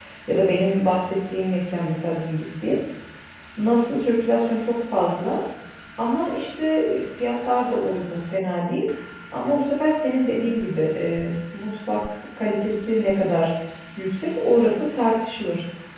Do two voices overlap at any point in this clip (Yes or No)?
No